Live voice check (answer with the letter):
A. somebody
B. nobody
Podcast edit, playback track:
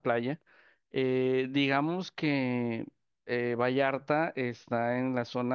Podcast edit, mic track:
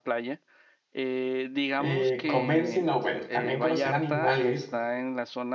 A